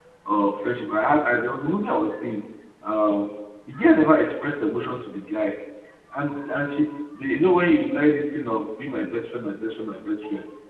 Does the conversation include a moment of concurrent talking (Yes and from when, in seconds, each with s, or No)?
No